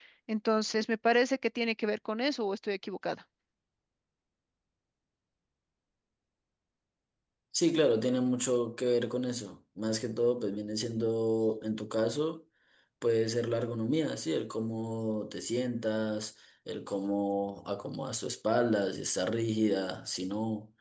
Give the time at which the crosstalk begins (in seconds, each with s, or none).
none